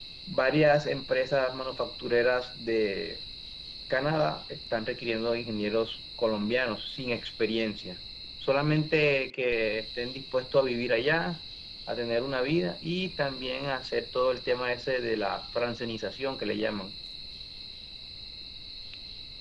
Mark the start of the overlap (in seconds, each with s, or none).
none